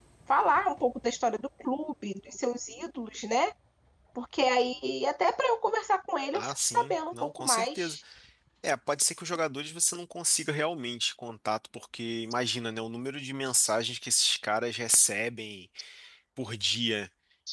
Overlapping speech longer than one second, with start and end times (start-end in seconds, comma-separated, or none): 6.3-8.0